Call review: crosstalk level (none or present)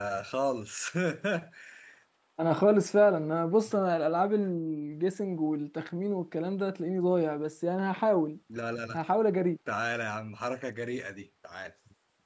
none